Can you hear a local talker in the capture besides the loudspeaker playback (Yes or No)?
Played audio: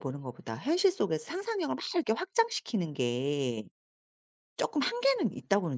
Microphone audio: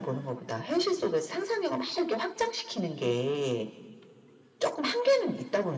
No